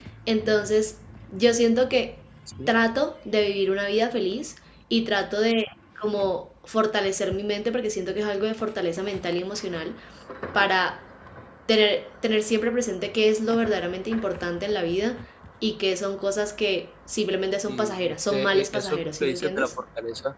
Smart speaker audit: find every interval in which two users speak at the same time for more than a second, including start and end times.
17.7-19.7

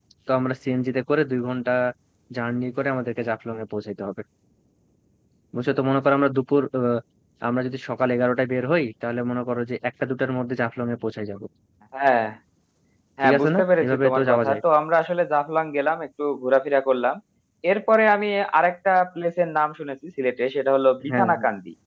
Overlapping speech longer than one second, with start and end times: 13.2-14.6

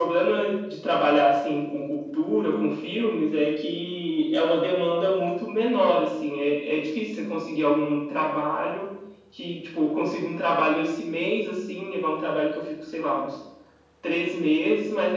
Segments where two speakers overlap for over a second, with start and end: none

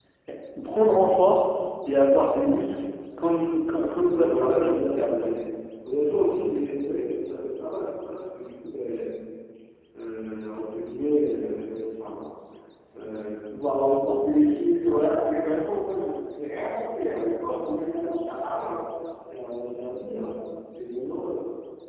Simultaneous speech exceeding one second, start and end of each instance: 4.1-5.3

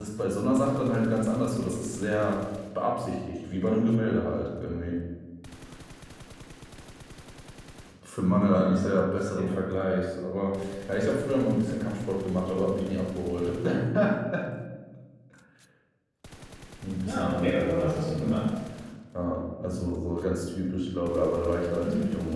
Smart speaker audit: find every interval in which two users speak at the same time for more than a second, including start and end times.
17.1-18.3

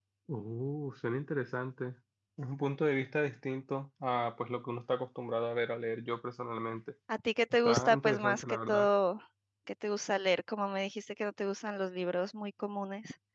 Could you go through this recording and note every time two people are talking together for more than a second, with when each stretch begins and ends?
7.6-8.9

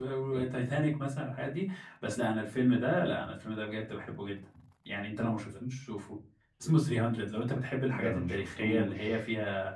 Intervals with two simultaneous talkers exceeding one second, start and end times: 7.9-9.2

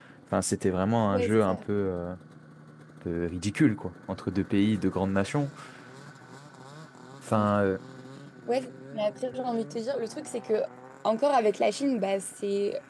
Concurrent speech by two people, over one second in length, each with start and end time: none

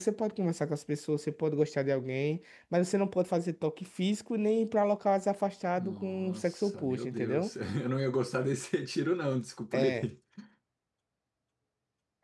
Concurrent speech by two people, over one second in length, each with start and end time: 5.8-7.5

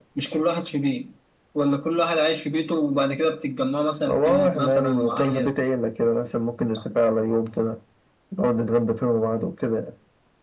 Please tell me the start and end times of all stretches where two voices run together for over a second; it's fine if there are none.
4.1-5.5

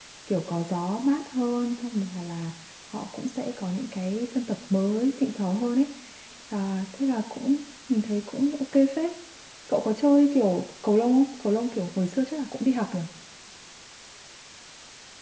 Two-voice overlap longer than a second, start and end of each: none

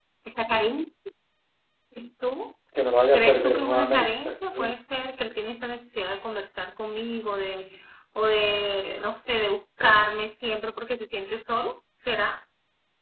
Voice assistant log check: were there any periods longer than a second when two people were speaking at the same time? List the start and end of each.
3.1-4.7

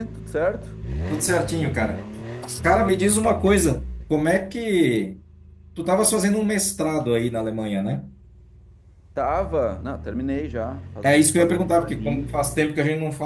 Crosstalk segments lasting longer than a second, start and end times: 11.0-12.3

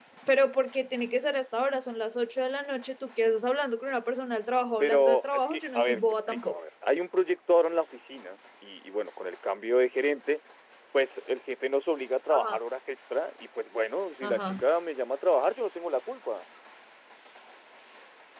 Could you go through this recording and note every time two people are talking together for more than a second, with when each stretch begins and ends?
4.8-6.6

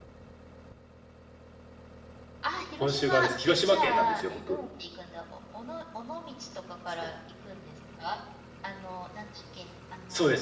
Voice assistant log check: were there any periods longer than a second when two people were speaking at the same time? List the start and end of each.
2.8-4.6

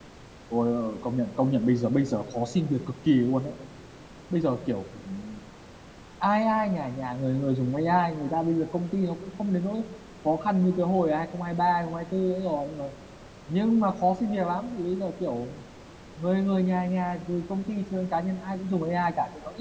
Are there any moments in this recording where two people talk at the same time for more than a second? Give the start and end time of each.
none

